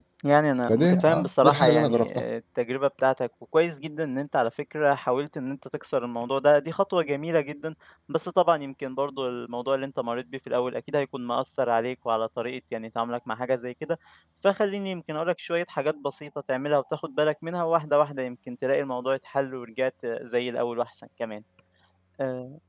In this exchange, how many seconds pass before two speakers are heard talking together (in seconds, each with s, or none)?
0.7 s